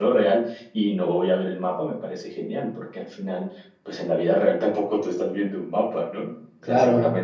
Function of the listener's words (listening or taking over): listening